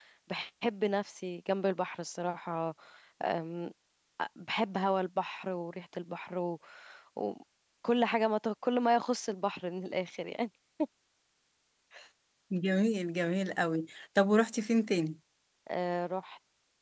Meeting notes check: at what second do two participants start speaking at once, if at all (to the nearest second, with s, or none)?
none